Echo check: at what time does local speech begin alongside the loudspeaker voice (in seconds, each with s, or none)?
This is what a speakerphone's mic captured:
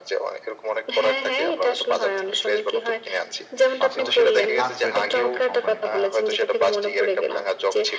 3.8 s